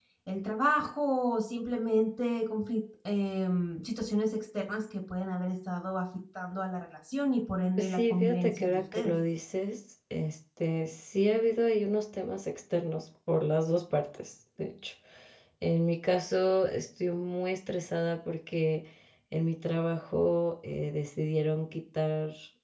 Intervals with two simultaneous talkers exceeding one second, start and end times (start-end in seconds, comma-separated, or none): 7.8-9.1